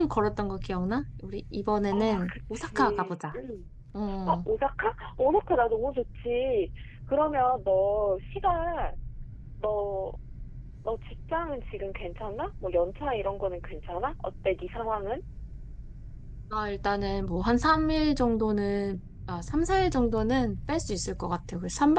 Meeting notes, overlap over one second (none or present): present